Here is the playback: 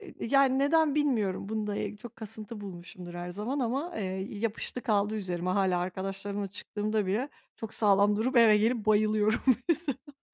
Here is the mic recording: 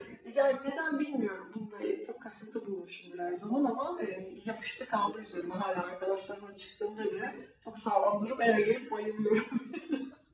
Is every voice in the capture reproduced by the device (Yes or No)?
Yes